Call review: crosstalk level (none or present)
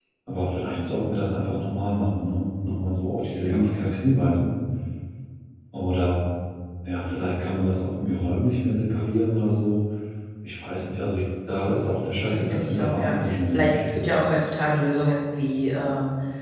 present